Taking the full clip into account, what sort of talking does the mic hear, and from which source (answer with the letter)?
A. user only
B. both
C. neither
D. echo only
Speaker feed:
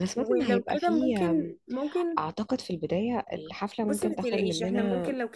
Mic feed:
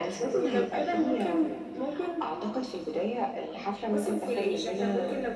D